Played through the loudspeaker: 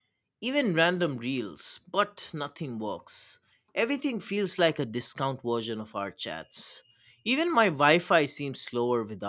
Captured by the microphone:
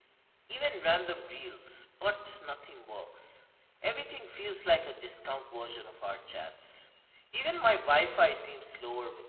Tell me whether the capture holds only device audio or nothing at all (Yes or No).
Yes